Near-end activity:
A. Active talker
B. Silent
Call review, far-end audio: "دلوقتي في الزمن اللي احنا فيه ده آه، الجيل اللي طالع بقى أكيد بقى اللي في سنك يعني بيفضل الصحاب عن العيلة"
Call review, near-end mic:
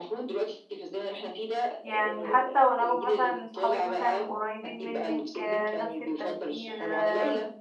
A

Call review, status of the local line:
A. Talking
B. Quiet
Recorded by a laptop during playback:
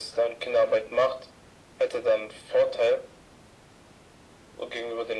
B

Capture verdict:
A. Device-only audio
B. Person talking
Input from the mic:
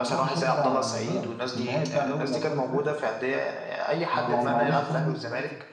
B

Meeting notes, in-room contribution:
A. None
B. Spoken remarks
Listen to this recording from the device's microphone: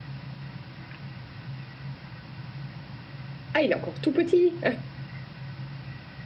B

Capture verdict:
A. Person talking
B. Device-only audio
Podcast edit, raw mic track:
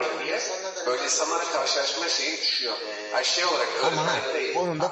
A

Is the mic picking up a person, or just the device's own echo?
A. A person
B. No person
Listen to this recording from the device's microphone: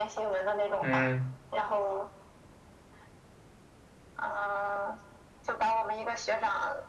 A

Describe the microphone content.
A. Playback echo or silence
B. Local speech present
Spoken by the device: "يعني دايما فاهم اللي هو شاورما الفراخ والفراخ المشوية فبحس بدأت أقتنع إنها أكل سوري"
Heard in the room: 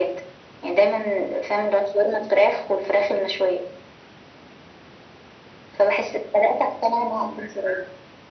A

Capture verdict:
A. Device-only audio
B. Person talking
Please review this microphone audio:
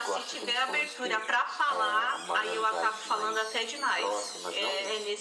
A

